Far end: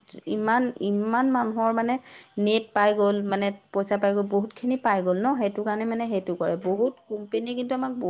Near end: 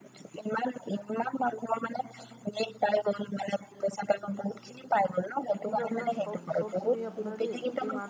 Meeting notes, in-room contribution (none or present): present